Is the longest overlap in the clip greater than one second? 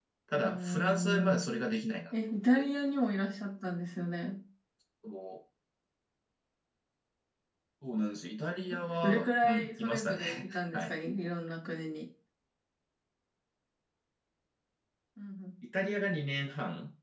Yes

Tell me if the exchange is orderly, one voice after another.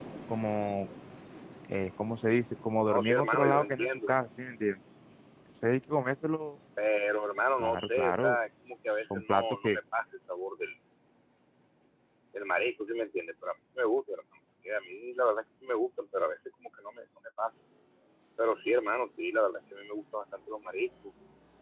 No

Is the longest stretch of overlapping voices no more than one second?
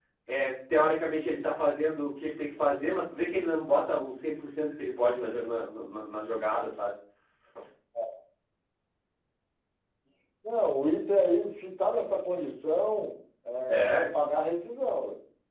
Yes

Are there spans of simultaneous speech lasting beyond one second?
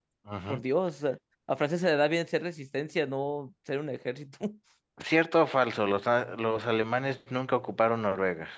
No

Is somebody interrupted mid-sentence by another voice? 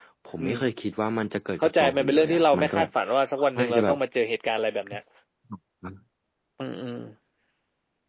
Yes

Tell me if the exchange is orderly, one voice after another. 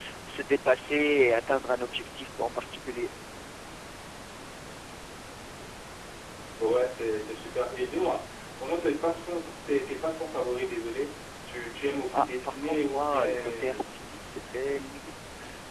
No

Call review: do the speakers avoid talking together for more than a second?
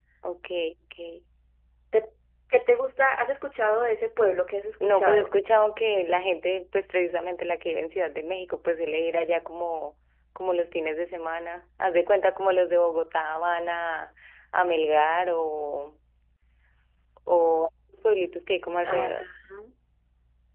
Yes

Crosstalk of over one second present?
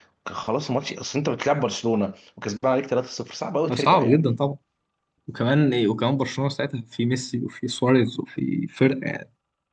No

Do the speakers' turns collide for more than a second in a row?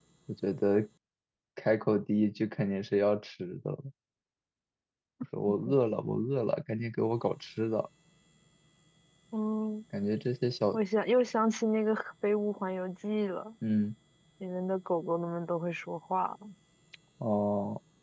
No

